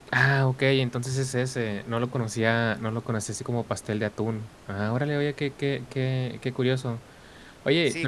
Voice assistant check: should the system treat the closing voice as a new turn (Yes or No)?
Yes